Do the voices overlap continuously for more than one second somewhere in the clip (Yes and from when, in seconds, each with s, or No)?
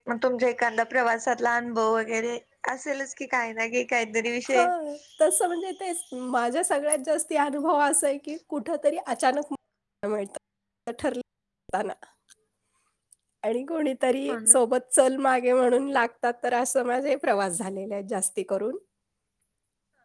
No